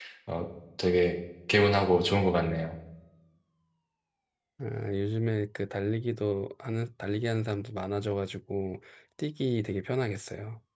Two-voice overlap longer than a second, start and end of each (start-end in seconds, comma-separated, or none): none